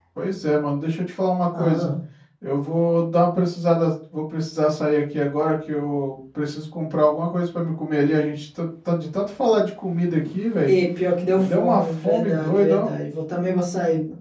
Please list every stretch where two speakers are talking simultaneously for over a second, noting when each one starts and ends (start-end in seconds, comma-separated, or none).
11.4-12.9